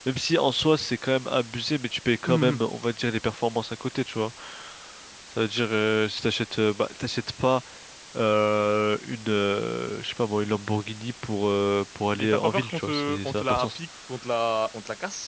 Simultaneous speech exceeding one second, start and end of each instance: 12.2-13.8

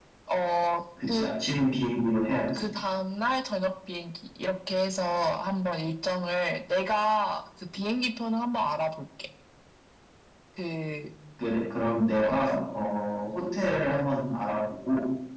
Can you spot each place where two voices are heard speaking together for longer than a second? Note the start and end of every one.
none

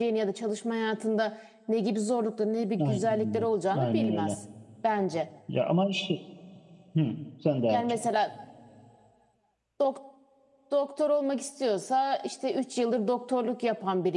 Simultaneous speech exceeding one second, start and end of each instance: 2.8-4.4

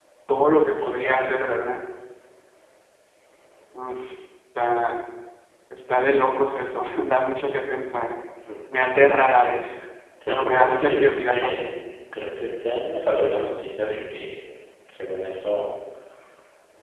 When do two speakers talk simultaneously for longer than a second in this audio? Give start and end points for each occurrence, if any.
10.3-11.7

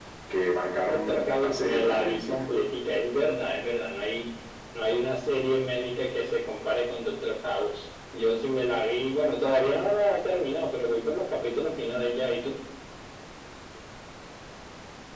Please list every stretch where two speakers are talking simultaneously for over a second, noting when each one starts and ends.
0.9-2.4

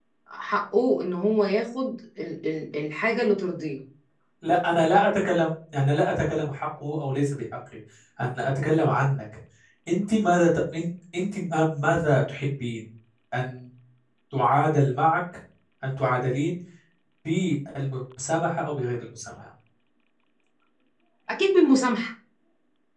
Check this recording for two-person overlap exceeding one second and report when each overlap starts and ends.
none

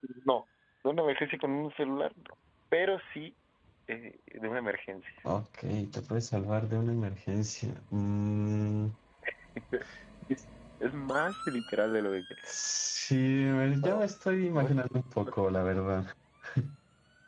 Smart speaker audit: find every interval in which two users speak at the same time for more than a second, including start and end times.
none

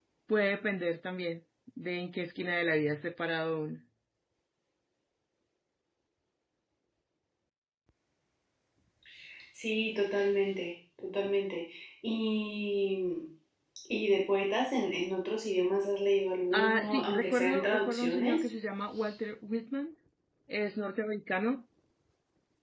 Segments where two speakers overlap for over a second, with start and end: 16.5-18.4

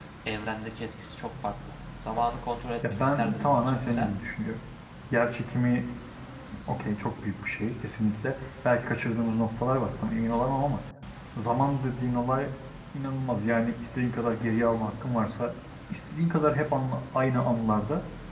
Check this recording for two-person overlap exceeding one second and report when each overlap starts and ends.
2.9-4.1

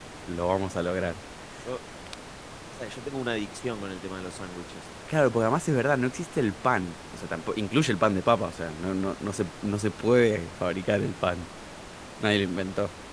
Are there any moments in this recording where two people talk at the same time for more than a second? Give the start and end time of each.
none

